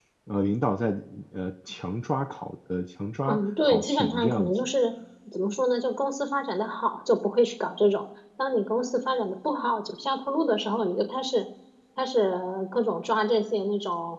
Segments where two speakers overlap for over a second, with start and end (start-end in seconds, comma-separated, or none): 3.2-4.5